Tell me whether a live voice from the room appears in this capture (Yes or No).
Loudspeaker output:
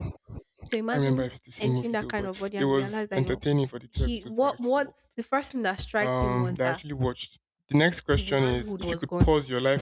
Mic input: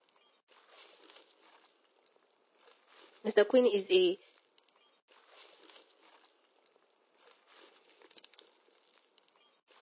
Yes